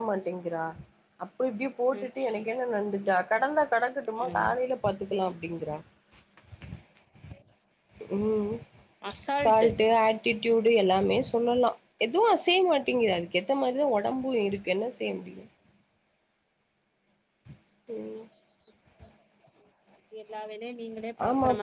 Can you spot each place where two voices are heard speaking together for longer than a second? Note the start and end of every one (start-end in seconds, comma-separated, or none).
none